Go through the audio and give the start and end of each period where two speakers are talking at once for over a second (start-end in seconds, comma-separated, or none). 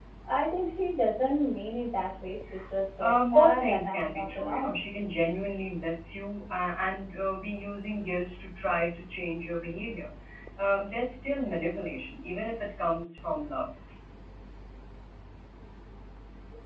3.0-4.9